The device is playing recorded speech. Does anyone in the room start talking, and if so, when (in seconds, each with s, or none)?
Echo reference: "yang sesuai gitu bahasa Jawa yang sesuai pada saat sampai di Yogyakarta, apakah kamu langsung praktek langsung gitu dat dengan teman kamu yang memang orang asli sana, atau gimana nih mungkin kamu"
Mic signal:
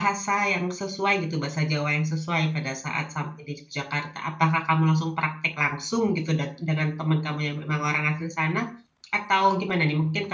none